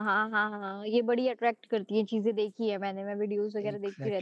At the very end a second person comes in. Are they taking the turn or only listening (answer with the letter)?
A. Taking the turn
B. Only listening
B